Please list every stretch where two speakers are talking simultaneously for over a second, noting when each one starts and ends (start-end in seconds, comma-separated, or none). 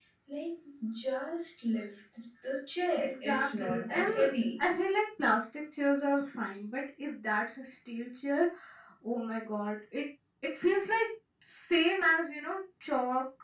3.0-4.6